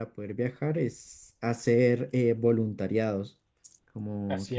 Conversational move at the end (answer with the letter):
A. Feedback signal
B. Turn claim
B